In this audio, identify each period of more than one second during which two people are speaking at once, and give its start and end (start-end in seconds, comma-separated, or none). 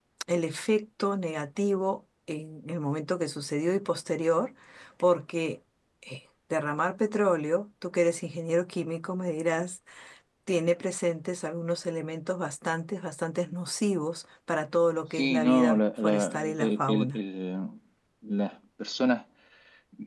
15.2-17.2